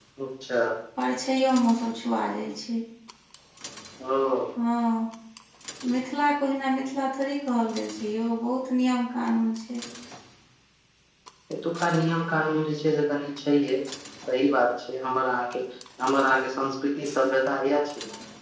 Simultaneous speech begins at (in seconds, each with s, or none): none